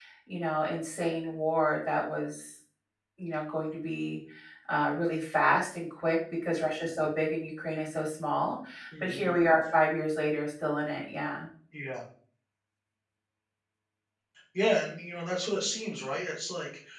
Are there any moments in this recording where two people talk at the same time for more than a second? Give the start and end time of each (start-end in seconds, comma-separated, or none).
none